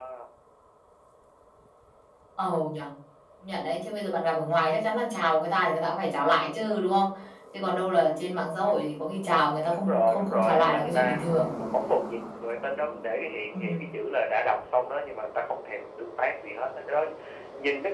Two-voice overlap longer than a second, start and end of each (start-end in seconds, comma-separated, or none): 9.7-11.2